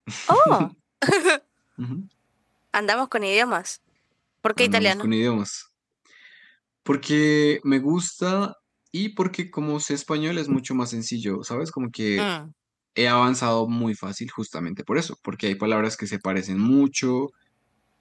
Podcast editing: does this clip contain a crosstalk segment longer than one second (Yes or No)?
No